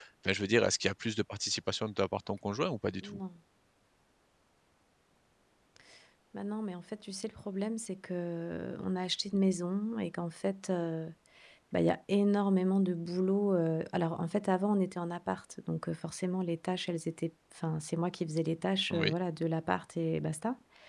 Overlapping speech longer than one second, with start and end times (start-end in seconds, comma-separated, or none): none